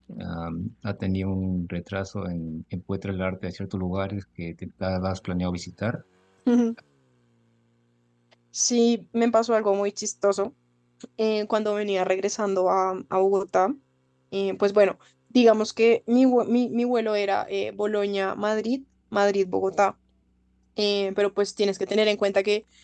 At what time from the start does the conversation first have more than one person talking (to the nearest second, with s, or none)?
none